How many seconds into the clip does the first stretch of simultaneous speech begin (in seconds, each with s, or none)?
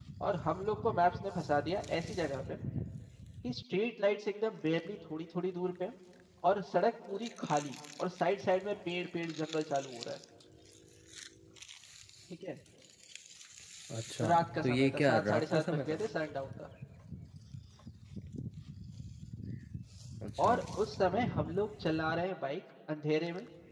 14.2 s